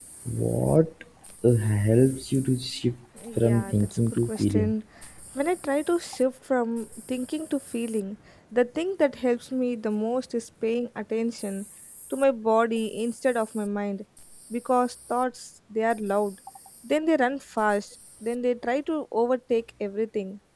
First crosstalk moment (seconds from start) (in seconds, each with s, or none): 3.1 s